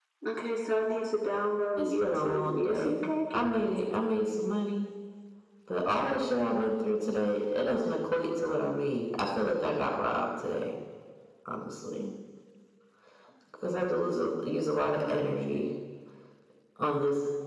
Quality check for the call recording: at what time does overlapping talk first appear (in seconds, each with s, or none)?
1.8 s